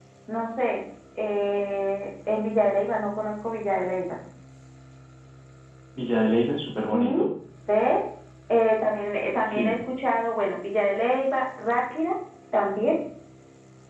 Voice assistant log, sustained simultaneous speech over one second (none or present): none